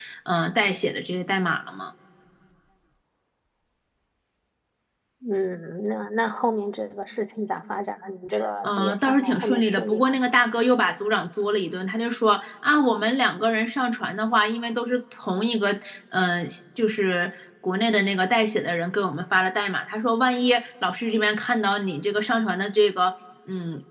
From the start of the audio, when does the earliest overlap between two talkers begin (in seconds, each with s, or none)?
8.6 s